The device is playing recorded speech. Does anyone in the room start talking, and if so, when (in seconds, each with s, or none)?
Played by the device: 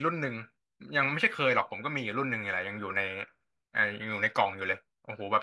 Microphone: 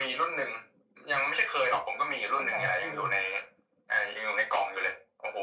2.3 s